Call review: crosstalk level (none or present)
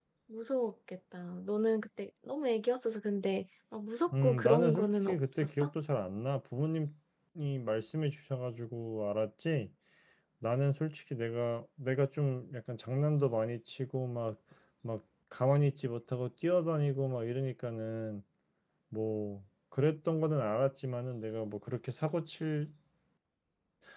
present